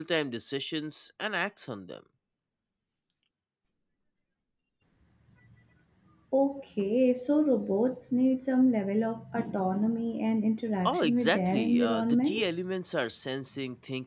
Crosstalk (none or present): present